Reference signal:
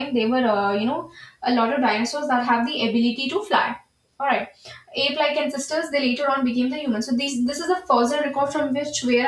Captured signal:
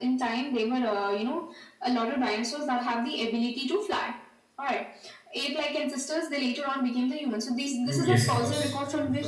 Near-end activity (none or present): present